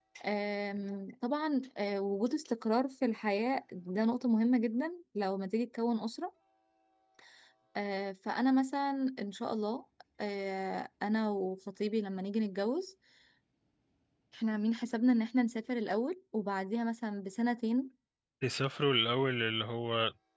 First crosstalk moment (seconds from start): none

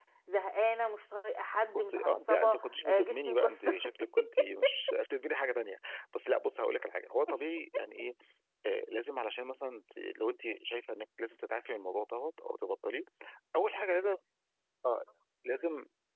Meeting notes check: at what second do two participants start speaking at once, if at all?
1.7 s

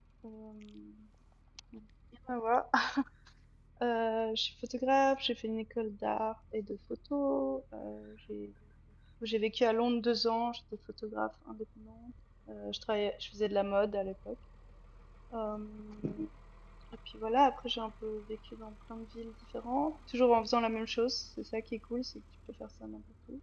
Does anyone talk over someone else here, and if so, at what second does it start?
none

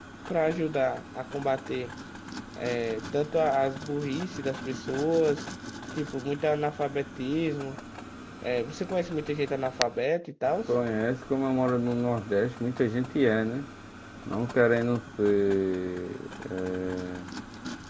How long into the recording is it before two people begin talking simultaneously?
none

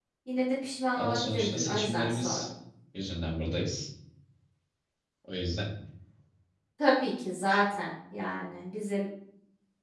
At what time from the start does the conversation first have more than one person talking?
1.0 s

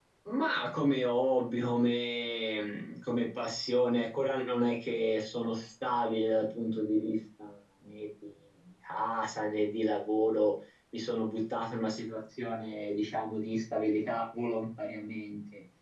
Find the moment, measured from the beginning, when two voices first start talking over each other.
none

